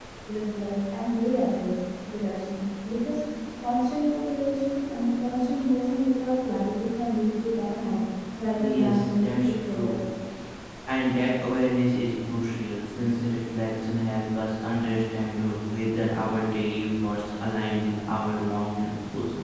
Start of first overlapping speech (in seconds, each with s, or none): 8.6 s